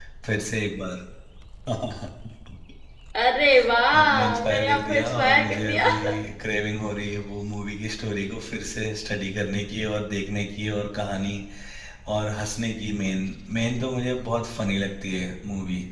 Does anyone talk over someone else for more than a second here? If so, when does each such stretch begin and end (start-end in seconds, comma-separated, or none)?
3.9-5.9